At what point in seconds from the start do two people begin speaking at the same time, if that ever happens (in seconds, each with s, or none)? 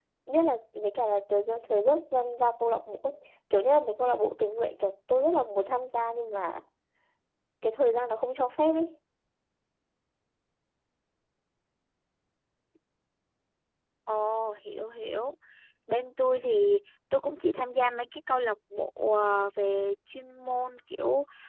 none